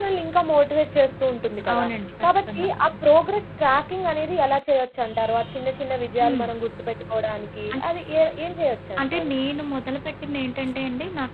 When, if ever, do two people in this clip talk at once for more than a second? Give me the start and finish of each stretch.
none

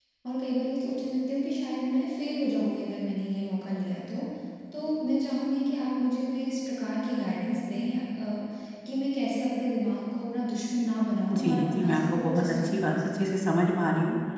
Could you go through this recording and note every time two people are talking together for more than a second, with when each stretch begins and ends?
11.3-13.3

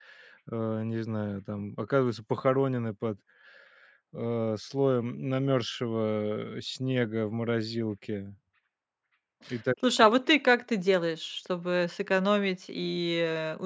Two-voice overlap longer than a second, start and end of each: none

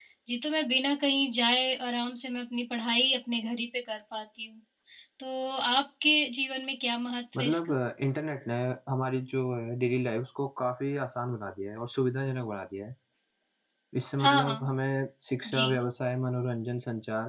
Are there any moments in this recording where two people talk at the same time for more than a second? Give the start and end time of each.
none

